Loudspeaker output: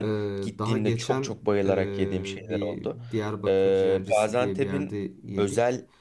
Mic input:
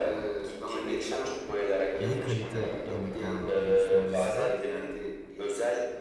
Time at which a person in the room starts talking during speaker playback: 2.0 s

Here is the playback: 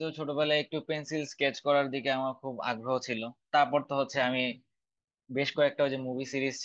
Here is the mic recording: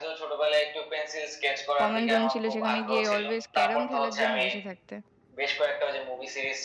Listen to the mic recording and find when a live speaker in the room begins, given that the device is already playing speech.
1.8 s

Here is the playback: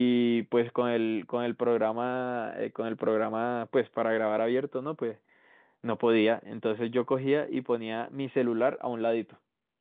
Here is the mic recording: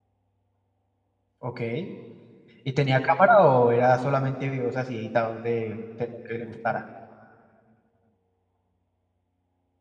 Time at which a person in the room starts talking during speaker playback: 1.4 s

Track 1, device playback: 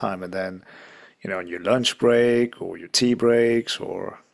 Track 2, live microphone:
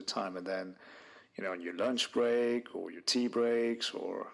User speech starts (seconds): none

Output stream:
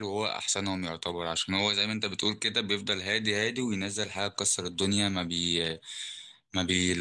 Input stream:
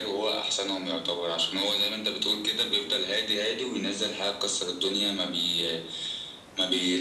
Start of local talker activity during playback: none

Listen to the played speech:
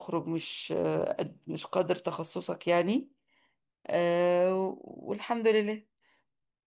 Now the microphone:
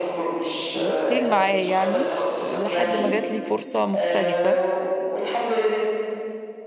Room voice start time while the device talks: 0.7 s

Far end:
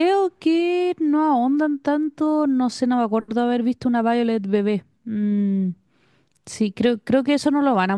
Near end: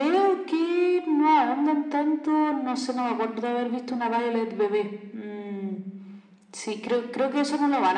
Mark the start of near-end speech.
none

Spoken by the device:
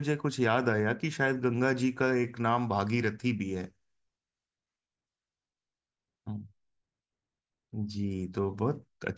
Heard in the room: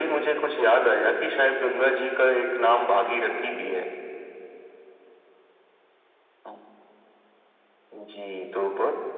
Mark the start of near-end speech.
none

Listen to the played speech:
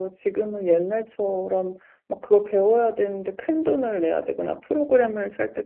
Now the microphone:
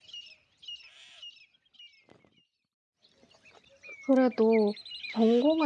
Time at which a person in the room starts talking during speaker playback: 4.0 s

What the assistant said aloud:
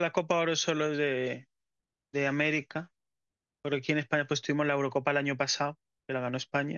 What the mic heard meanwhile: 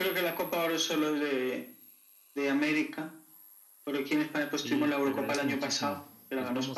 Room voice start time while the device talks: 4.5 s

